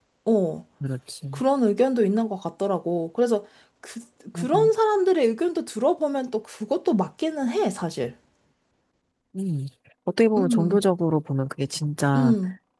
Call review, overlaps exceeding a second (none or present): none